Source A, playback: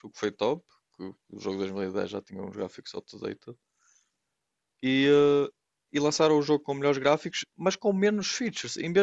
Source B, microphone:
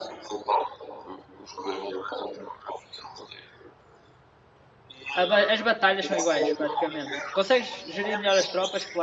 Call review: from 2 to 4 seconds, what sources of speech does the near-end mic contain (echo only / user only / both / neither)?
echo only